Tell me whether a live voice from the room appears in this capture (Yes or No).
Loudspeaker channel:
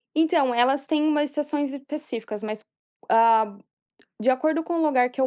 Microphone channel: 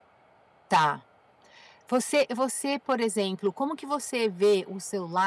Yes